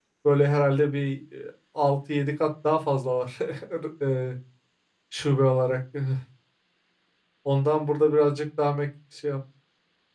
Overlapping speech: No

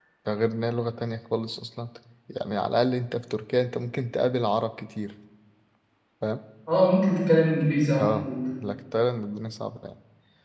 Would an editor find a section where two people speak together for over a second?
No

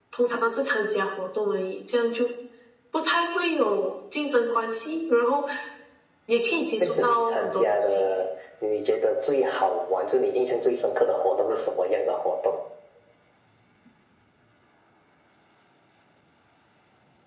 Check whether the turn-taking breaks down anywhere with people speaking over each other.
Yes, from 6.8 s

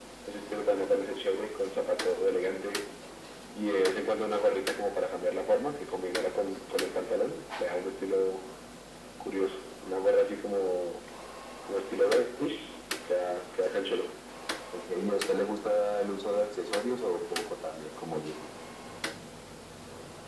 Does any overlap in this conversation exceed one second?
No

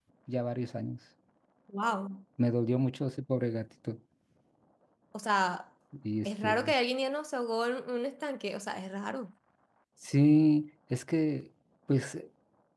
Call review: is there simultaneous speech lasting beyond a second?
No

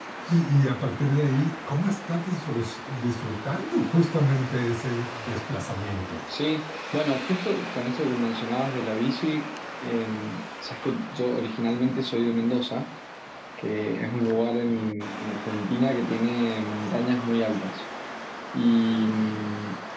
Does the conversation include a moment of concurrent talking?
No

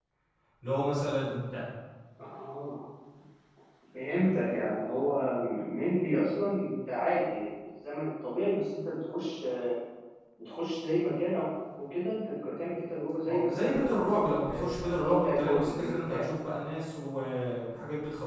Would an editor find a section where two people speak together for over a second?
Yes, from 13.3 s

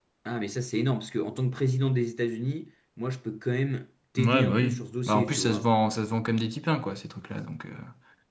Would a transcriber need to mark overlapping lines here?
Yes, from 4.2 s

